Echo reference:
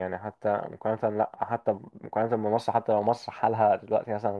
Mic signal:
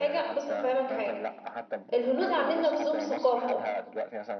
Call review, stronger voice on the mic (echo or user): user